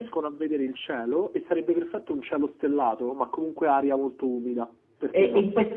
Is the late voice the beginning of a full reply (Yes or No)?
Yes